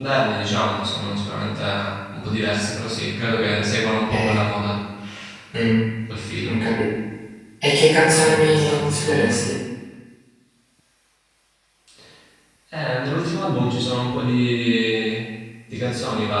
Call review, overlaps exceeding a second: present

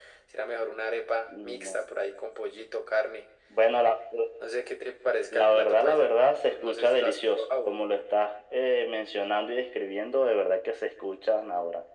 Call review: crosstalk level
present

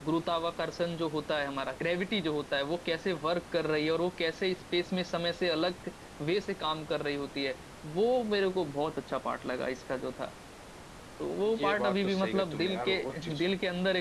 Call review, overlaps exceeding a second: present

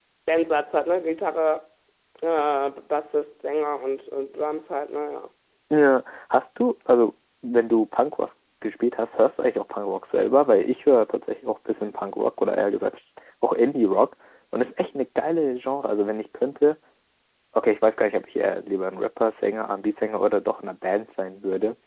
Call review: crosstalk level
none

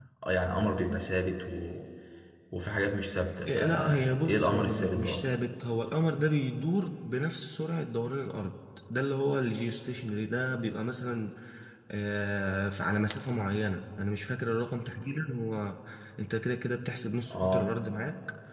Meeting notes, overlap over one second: present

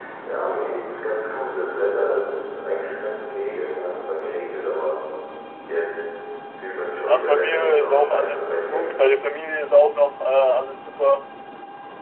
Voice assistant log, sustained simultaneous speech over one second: present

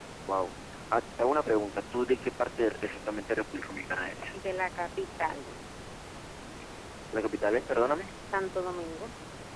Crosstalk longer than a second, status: none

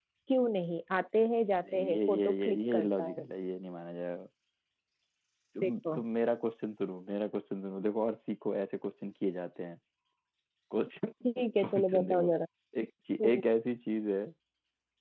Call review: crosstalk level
present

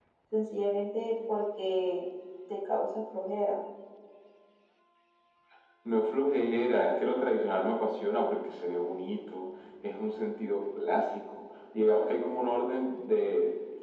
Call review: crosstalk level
none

